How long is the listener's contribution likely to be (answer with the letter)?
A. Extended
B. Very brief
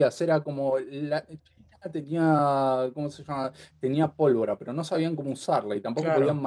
B